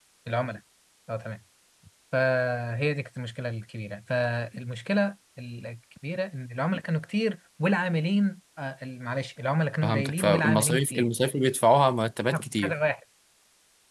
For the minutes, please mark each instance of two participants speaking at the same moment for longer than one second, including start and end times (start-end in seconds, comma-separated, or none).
9.8-11.1